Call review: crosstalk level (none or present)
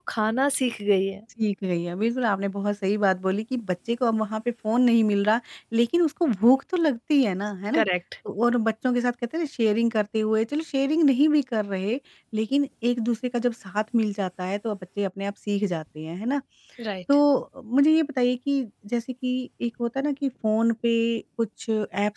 none